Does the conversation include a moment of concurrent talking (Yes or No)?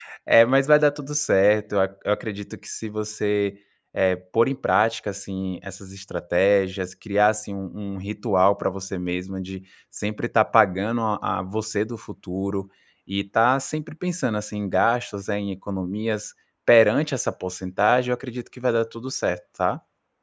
No